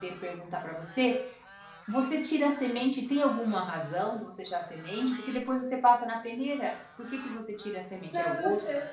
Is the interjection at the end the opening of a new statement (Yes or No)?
Yes